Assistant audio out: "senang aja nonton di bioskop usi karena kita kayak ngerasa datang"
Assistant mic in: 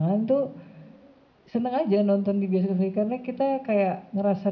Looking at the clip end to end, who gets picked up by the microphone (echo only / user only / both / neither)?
echo only